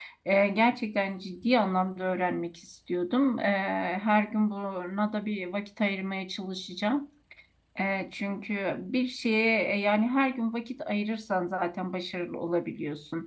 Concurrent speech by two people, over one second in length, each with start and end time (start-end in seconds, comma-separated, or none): none